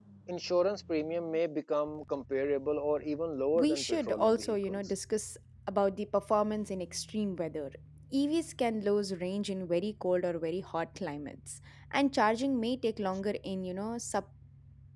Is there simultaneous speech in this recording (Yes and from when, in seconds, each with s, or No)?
Yes, from 3.5 s